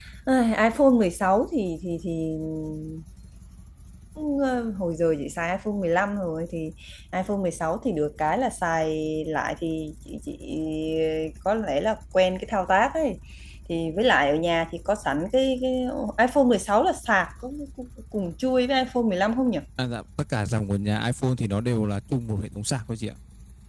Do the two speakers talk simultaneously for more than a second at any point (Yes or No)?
No